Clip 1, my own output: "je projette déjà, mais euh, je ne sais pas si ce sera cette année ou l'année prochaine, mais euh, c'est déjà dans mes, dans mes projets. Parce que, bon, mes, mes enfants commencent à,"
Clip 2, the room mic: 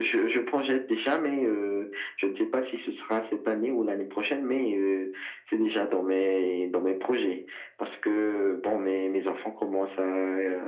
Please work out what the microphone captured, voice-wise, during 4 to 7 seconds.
echo only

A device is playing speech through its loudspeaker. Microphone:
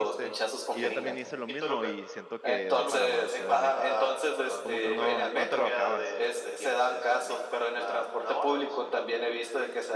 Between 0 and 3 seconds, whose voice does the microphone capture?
both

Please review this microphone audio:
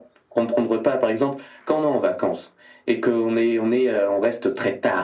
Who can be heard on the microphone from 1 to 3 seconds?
echo only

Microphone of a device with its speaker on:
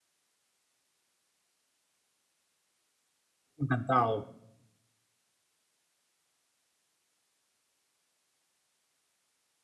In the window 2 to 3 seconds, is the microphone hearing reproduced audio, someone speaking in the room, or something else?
neither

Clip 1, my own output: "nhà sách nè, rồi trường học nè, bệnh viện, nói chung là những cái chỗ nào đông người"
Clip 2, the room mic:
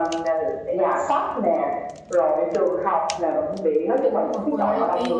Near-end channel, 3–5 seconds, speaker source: both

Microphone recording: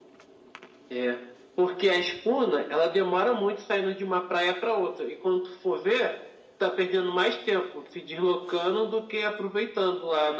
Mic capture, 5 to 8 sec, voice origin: echo only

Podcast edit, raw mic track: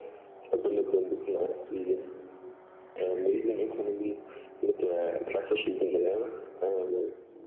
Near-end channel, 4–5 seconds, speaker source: echo only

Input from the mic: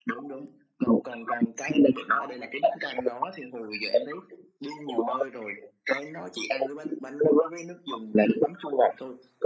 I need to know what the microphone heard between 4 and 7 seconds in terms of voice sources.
echo only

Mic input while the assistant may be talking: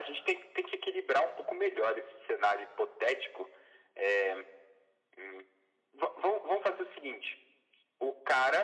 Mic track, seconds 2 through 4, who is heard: echo only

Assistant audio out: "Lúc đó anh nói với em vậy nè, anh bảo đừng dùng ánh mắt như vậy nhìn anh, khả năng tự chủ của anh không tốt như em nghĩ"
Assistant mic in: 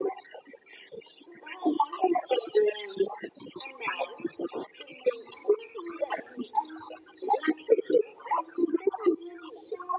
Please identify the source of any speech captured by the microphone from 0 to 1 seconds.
neither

